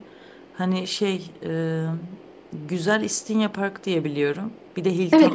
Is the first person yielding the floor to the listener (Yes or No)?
Yes